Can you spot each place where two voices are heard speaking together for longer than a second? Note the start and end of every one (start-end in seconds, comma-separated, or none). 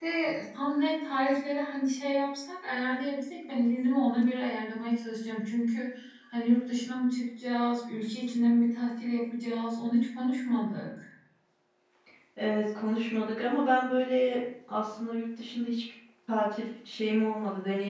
none